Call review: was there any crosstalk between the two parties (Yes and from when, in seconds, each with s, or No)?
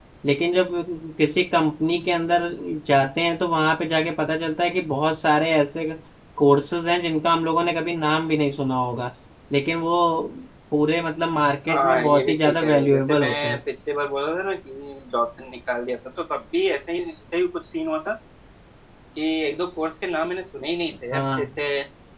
Yes, from 11.7 s